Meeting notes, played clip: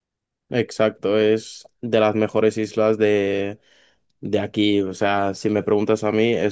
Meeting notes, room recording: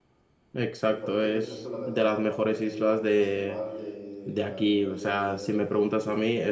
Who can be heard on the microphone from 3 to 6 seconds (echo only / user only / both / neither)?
both